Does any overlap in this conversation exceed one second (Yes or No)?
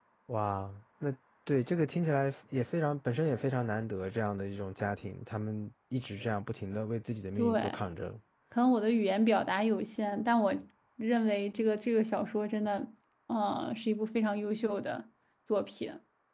No